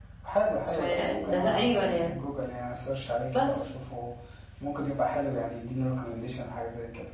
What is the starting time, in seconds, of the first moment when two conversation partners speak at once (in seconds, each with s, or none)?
0.7 s